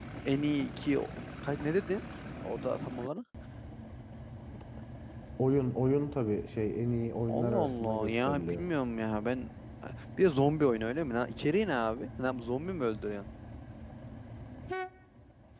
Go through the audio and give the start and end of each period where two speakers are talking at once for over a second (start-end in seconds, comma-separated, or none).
7.3-8.7